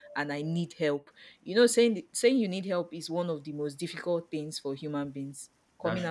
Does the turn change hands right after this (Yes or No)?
No